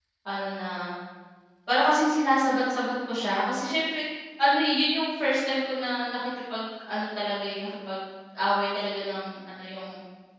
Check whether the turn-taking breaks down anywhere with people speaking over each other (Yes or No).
No